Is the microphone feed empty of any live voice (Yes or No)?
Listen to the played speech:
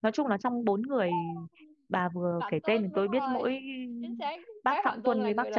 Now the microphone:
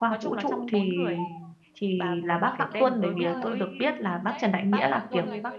No